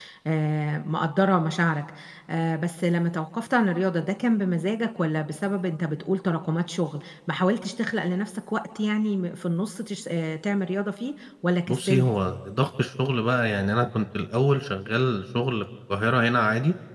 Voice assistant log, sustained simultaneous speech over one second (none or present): none